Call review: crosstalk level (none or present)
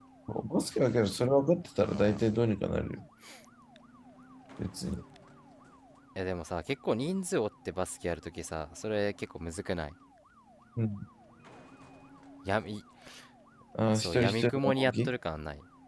present